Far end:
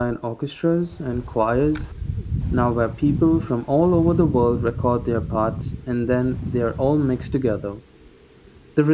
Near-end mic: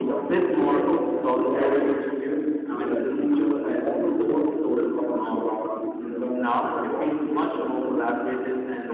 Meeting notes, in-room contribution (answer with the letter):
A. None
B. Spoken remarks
B